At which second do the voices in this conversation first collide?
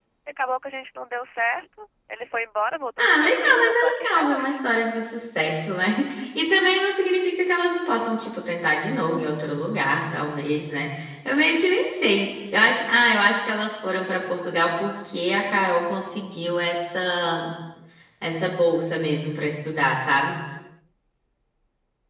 3.0 s

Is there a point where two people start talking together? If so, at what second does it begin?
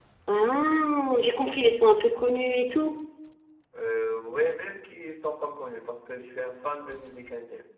none

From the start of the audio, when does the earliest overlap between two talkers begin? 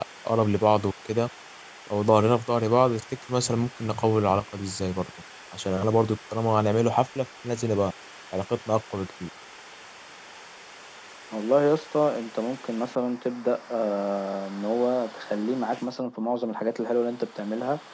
none

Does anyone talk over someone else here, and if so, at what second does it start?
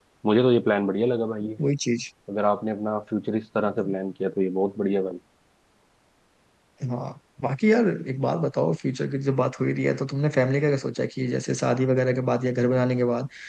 none

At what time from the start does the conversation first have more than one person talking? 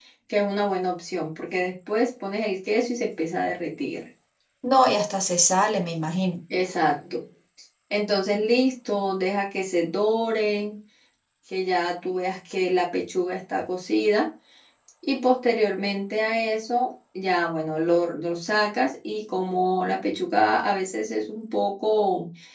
none

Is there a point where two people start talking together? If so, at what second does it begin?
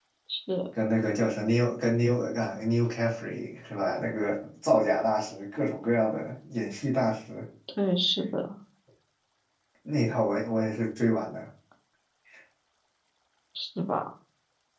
none

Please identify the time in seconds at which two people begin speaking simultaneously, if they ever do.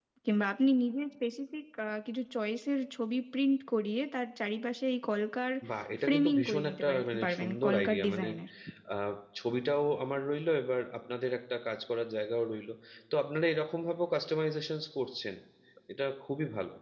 6.0 s

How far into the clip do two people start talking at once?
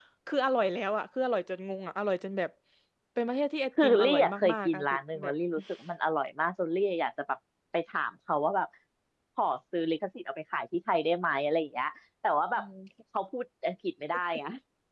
3.8 s

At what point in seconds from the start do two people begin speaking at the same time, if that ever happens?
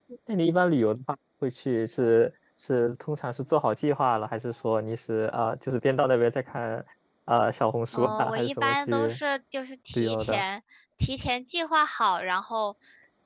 7.9 s

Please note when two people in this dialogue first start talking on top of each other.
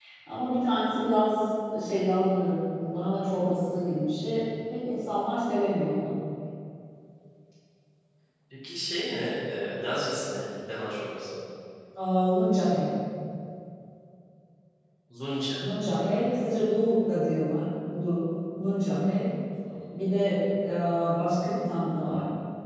none

